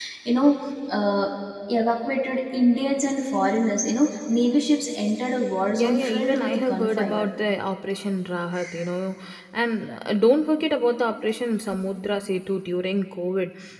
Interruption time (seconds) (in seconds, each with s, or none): 5.8 s